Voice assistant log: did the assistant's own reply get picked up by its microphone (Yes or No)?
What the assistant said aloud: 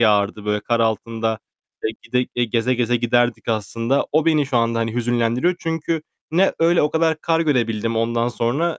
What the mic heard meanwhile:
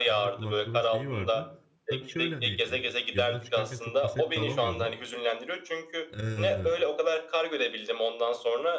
Yes